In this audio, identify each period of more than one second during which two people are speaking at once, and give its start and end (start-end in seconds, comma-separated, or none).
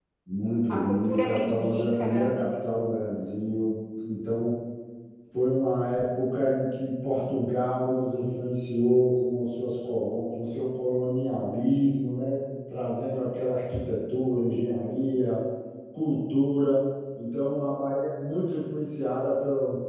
0.7-2.4